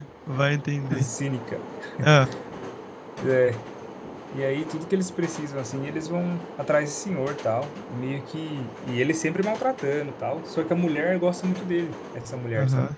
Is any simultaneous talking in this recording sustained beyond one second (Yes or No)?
No